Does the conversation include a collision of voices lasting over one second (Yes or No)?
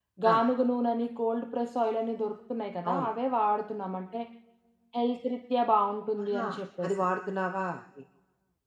No